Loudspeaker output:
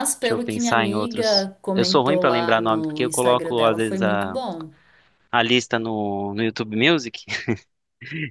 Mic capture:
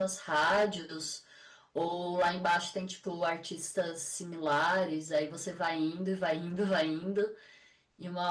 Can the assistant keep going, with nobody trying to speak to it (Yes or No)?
No